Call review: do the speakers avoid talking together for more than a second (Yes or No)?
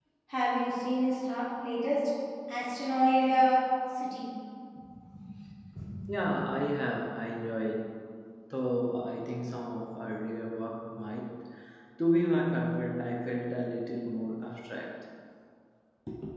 Yes